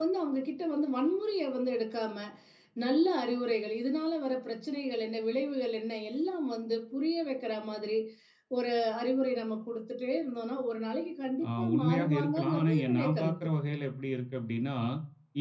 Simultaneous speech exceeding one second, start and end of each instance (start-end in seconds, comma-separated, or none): 11.6-13.3